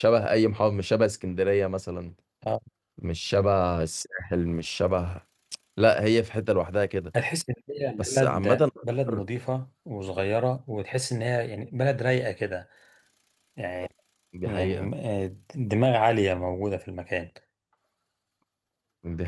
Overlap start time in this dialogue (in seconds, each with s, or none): 8.0 s